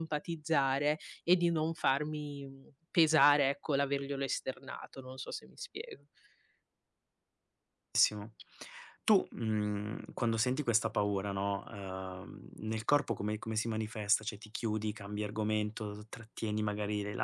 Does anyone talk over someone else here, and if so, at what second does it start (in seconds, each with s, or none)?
none